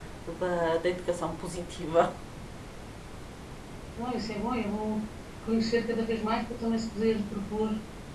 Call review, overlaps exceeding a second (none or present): none